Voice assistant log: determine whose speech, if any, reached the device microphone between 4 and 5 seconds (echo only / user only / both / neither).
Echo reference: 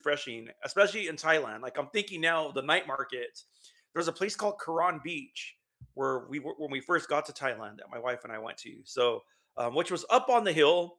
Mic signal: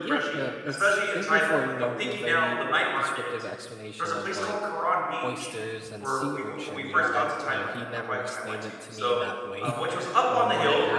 both